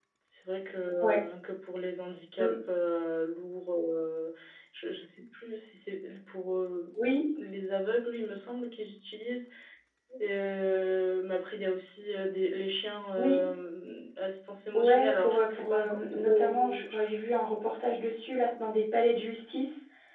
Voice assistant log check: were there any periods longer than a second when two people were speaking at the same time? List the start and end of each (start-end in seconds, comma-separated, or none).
14.7-16.8